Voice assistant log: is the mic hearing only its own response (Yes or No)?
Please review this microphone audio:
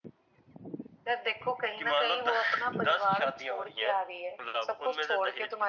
Yes